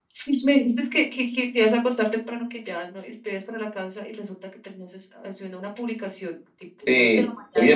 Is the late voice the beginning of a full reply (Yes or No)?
Yes